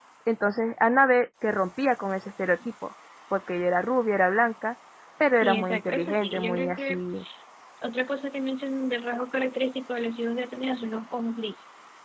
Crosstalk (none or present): present